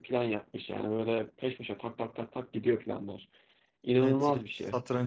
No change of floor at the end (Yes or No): No